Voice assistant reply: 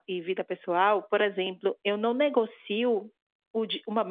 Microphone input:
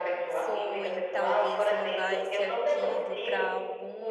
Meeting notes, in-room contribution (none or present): present